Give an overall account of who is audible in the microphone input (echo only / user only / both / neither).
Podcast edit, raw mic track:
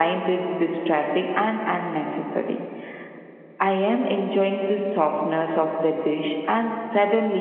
echo only